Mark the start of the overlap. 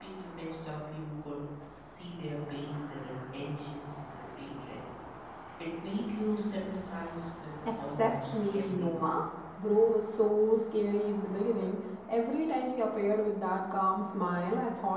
7.8 s

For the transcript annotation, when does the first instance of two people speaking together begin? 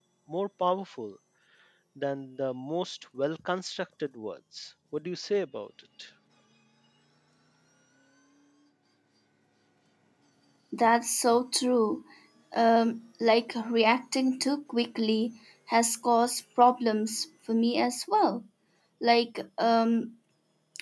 none

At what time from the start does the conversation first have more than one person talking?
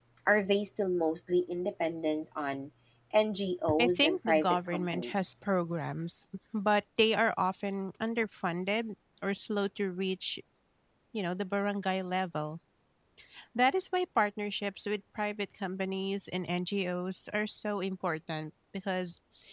3.8 s

